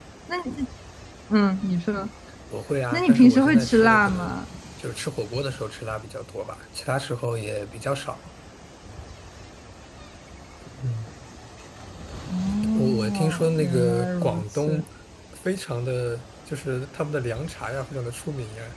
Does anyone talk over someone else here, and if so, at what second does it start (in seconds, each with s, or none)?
2.9 s